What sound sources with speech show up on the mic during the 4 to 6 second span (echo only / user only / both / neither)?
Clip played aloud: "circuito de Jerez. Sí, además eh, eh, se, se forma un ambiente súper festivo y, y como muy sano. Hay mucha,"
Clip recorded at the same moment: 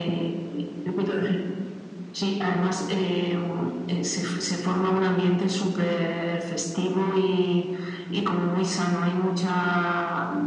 echo only